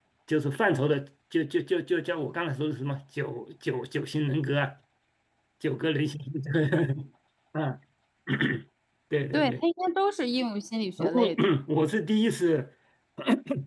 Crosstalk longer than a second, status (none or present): none